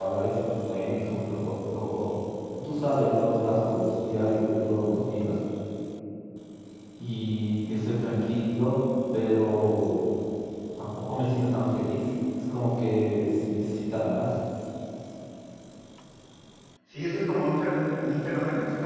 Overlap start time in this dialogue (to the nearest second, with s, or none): none